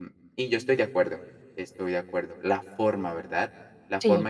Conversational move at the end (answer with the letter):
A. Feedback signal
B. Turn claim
A